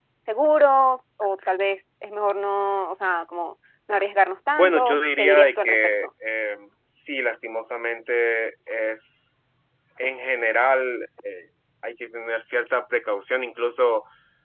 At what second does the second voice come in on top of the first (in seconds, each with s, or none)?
4.6 s